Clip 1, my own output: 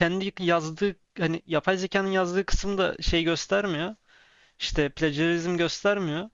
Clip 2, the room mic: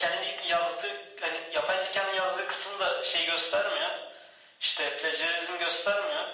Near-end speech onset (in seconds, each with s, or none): none